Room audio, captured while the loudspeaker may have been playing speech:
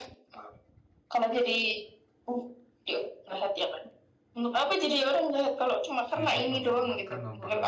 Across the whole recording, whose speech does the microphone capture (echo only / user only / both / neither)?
both